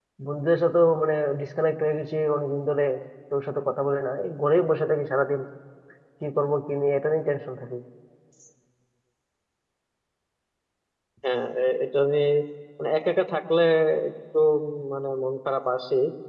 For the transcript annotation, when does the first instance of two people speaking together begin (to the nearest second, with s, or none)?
none